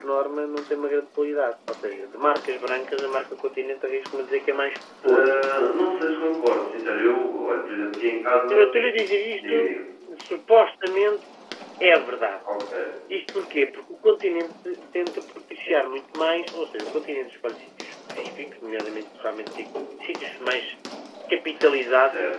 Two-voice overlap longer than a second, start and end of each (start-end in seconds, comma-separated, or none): none